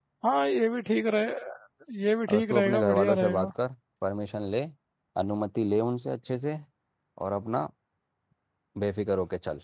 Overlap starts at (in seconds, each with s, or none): 2.3 s